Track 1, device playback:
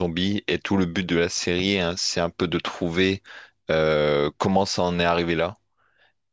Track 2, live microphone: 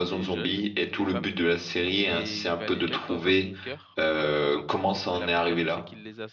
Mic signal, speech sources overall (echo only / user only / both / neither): both